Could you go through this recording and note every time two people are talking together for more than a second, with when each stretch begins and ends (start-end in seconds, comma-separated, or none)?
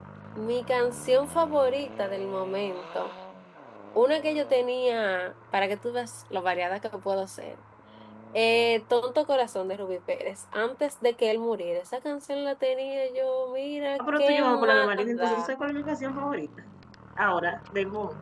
14.0-15.5